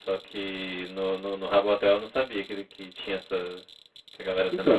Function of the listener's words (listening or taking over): taking over